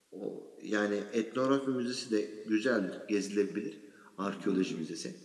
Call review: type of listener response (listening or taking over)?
listening